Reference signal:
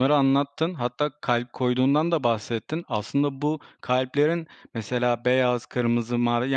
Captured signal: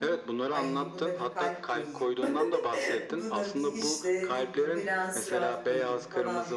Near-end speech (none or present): present